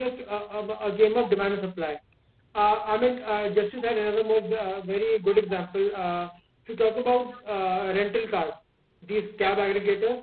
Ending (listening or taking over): listening